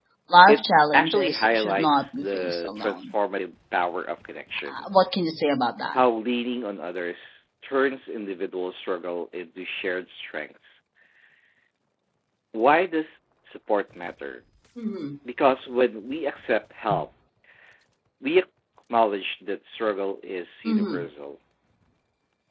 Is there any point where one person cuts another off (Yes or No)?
Yes